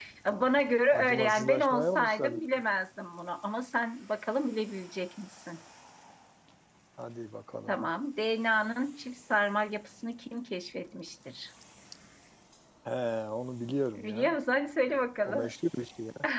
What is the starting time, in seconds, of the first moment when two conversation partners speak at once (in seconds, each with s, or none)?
0.9 s